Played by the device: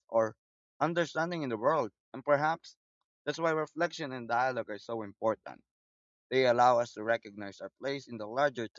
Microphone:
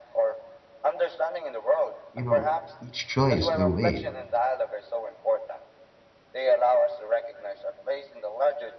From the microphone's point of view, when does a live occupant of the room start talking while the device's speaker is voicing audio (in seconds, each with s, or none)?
2.1 s